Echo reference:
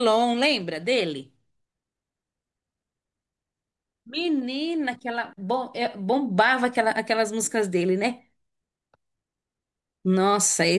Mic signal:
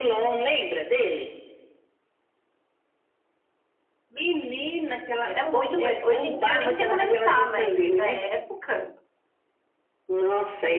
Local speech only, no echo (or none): Ele era muito bonito. Hoje em dia eu nem sei como ele tá, mas na época.